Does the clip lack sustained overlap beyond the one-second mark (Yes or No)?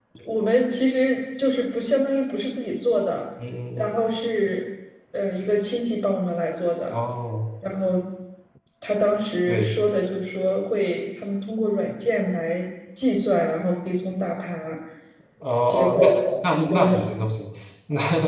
Yes